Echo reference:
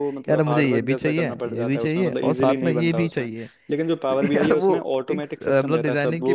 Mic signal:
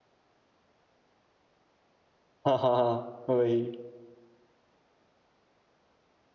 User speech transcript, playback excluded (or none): हाँ हाँ हाँ वही